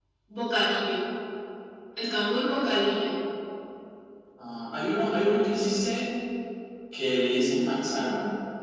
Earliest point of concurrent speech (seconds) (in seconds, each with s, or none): none